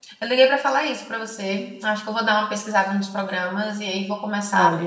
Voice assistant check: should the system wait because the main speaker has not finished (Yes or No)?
No